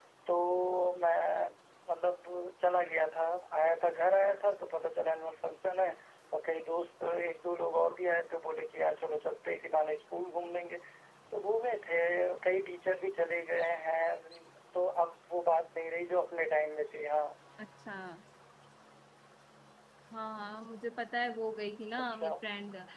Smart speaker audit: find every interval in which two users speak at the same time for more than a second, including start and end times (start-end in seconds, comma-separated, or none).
none